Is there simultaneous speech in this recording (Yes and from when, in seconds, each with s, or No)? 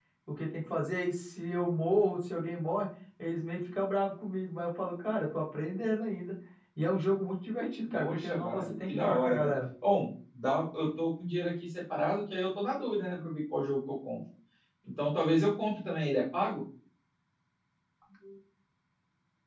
Yes, from 7.9 s